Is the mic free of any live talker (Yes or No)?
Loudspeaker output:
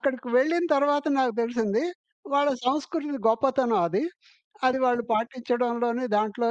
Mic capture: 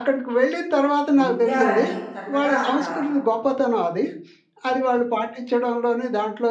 No